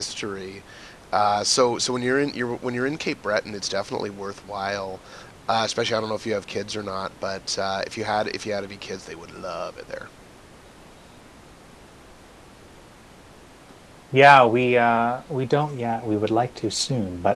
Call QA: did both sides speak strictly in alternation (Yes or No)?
Yes